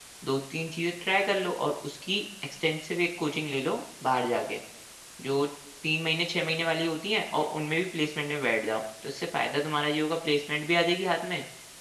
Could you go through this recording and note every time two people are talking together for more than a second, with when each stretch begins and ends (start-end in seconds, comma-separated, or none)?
none